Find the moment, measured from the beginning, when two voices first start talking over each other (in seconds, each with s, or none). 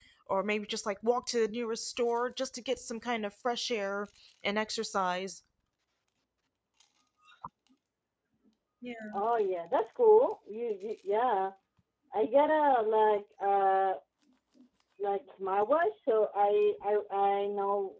none